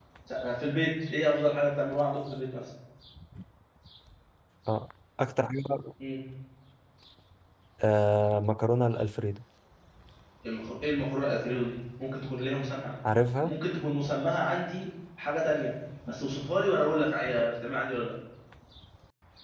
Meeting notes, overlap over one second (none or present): none